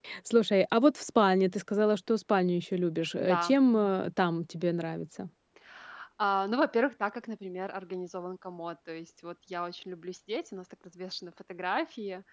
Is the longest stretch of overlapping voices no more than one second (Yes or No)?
Yes